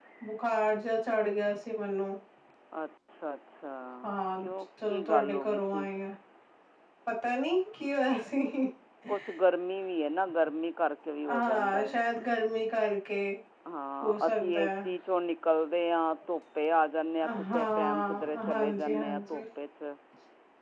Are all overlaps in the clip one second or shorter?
No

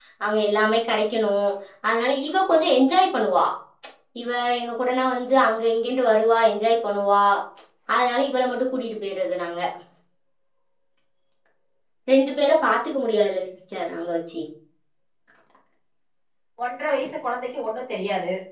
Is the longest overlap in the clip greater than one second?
No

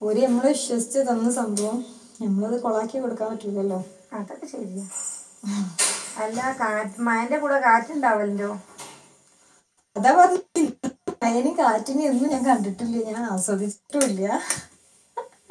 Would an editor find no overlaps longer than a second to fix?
Yes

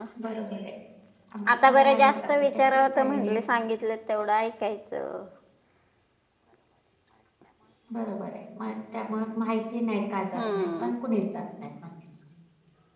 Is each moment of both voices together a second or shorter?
No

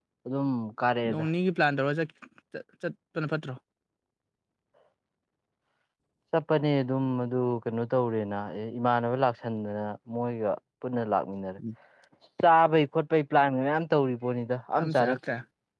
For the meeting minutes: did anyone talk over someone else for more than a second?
No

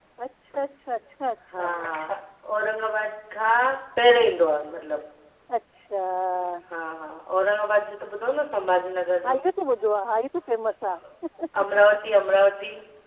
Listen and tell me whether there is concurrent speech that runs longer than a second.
No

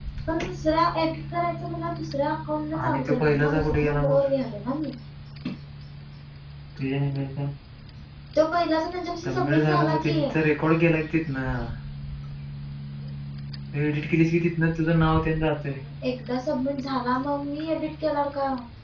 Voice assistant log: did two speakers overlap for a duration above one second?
Yes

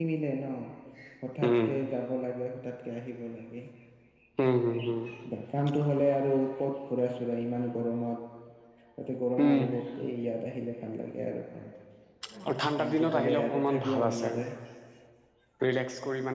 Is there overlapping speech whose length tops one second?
Yes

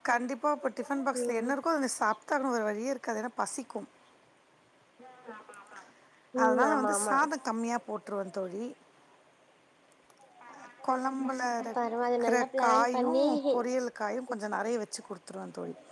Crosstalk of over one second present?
Yes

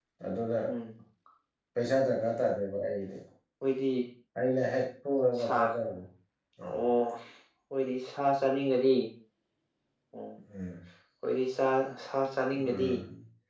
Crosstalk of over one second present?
No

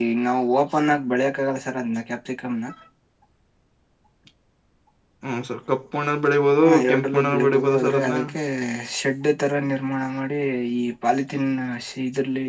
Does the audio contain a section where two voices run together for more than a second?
Yes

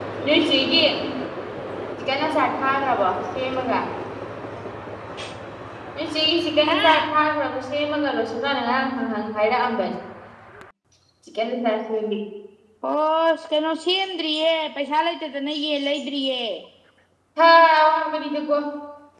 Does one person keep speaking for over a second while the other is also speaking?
No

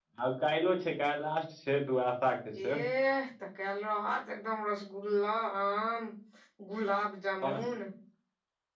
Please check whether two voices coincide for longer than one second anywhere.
No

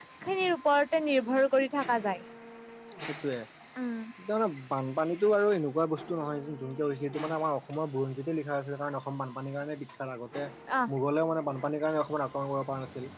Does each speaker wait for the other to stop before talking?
Yes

